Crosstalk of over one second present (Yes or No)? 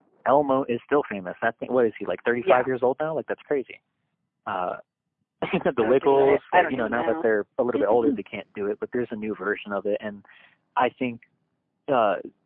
Yes